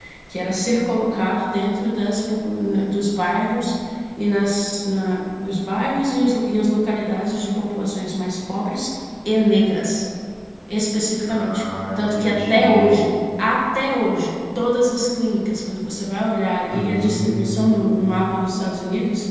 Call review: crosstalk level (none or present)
present